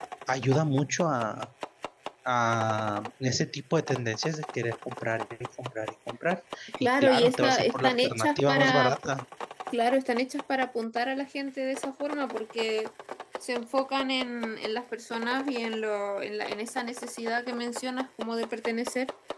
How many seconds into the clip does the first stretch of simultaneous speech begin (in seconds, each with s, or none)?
6.7 s